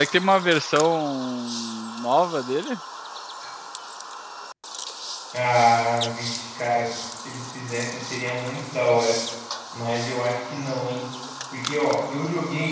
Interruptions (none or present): none